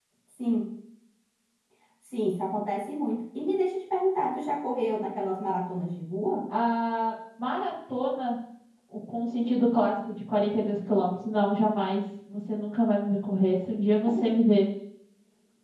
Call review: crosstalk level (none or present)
none